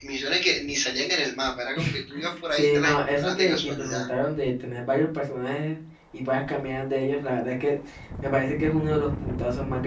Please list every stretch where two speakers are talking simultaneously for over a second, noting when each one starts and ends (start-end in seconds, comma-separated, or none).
2.5-4.0